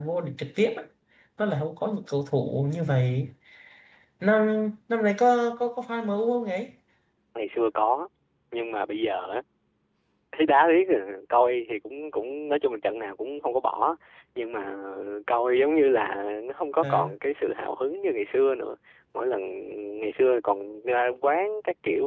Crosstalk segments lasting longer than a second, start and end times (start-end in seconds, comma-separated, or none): none